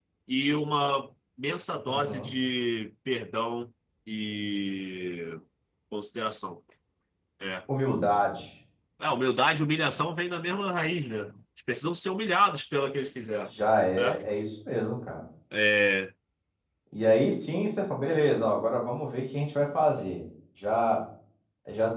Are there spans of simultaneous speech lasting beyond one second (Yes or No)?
No